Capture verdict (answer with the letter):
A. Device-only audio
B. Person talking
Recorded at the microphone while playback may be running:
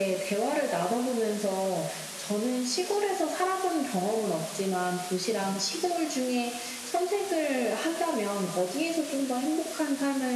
A